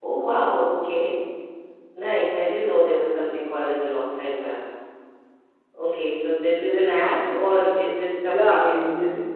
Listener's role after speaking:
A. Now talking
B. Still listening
A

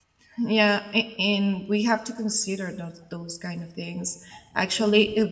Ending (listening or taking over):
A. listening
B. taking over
A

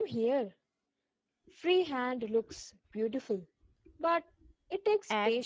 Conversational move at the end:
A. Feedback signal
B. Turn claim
B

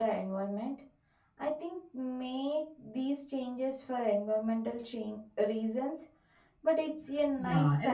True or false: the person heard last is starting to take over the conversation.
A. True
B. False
A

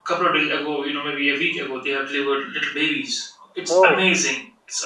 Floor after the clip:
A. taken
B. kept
B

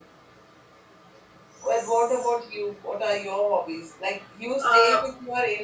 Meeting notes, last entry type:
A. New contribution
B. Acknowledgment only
B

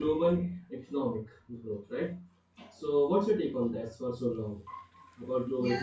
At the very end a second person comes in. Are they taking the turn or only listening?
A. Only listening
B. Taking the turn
B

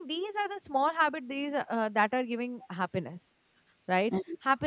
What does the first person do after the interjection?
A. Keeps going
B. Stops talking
A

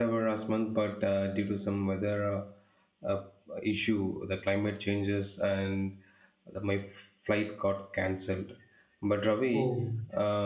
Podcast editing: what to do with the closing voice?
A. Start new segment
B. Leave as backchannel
B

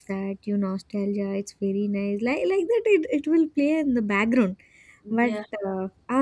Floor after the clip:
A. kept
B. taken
A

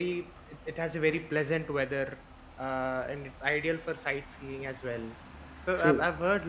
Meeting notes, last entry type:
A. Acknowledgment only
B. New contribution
A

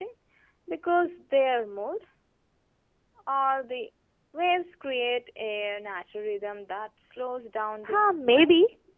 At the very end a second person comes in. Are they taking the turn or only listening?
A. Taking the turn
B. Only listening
A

